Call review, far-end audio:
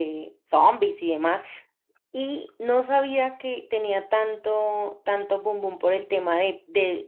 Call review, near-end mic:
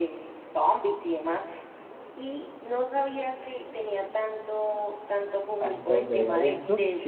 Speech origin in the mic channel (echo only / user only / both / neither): both